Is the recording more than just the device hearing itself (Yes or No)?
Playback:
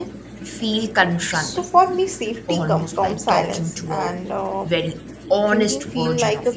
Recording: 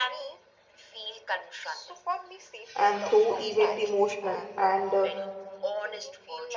Yes